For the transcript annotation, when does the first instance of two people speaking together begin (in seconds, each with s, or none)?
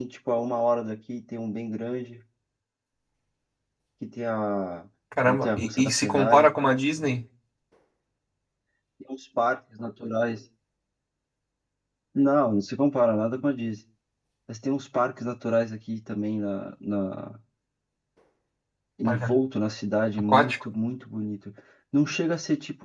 5.2 s